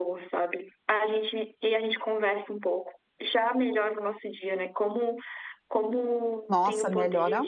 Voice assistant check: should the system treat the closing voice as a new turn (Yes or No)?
Yes